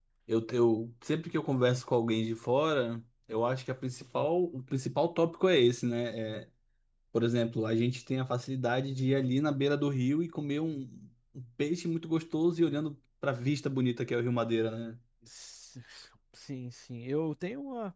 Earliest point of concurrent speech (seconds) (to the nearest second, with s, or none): none